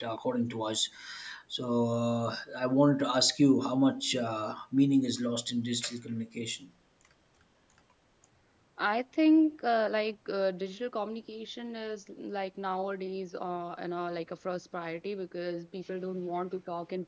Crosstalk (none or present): none